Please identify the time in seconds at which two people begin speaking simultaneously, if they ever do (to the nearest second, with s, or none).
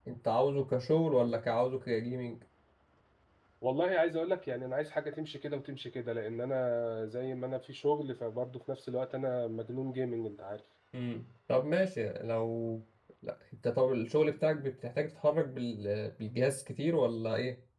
none